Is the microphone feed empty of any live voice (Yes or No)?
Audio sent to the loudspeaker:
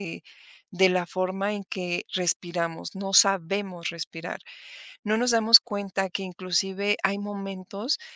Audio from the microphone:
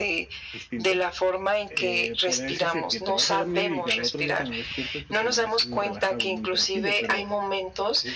No